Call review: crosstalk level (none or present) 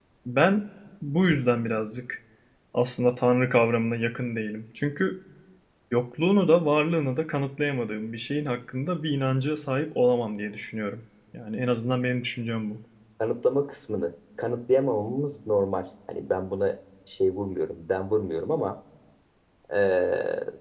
none